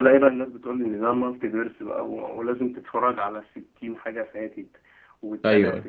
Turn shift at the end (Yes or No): No